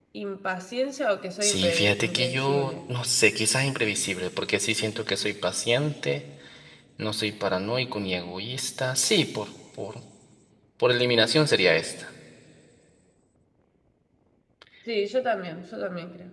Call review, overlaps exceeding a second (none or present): present